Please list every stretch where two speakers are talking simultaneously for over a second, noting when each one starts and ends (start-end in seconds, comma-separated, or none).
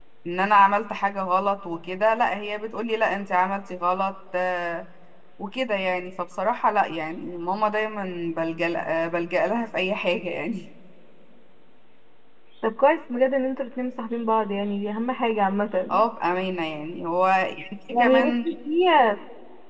none